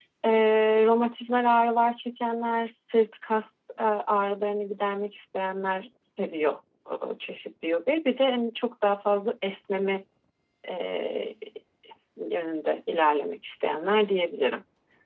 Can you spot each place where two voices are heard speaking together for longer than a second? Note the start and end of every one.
none

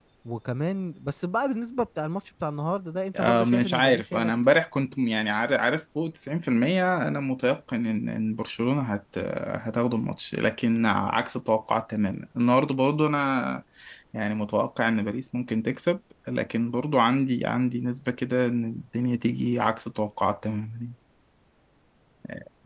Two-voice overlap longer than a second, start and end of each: 3.2-4.6

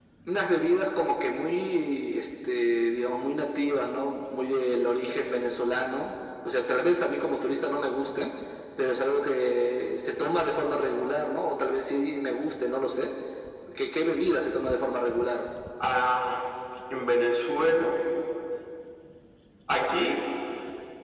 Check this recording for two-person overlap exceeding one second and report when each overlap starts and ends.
none

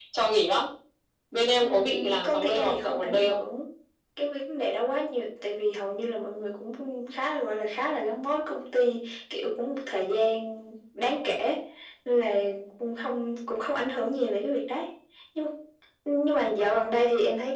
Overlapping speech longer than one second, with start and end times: 1.6-3.4

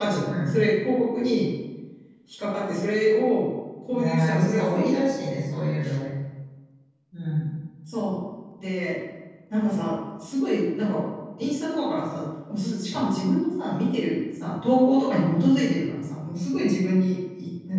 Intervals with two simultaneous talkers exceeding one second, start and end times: 3.9-5.4

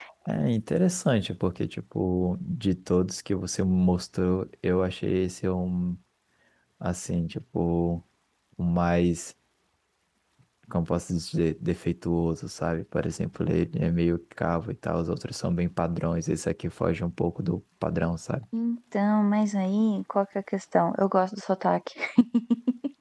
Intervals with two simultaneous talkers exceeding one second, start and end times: none

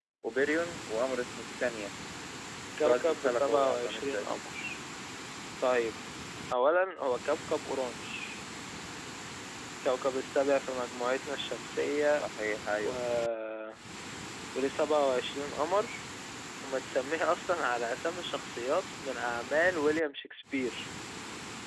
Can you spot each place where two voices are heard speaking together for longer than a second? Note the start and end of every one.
2.8-4.4

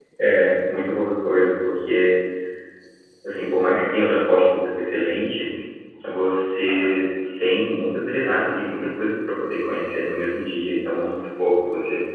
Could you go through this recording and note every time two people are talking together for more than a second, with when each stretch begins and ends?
none

